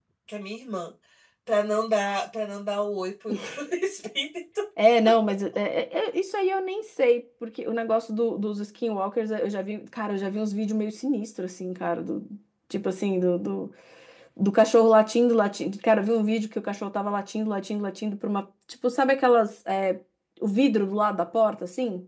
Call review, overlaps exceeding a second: none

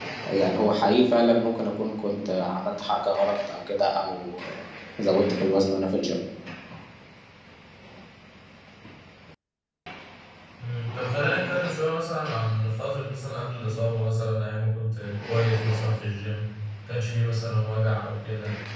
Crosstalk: none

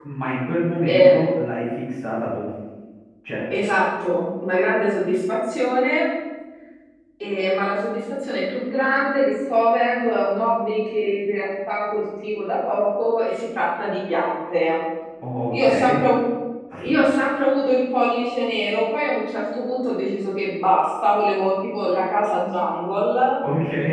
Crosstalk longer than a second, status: none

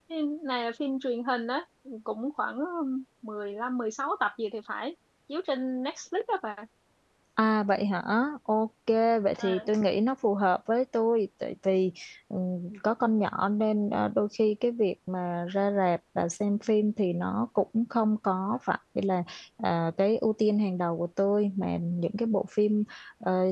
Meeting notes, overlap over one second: none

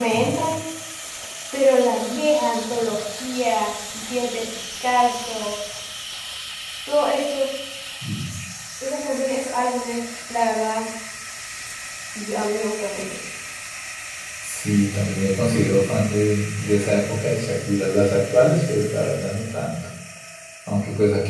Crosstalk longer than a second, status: none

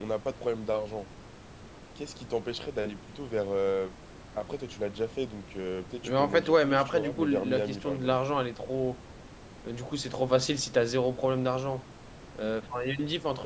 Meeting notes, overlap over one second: present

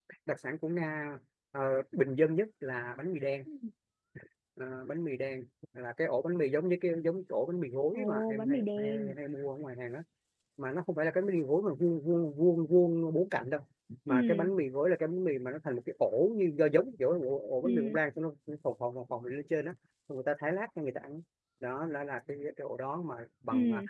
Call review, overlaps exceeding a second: present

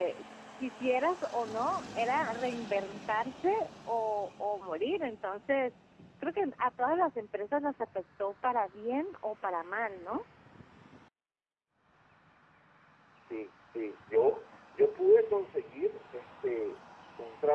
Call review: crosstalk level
none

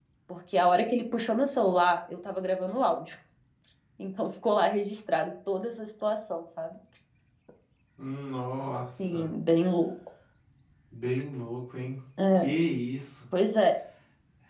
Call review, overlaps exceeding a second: none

